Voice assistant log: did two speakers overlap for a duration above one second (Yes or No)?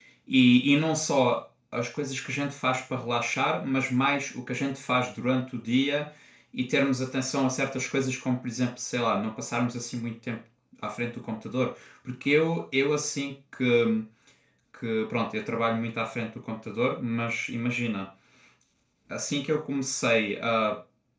No